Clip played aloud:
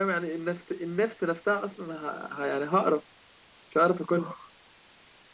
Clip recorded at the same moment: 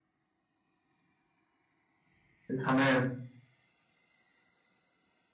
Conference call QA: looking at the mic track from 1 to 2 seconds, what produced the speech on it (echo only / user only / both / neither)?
neither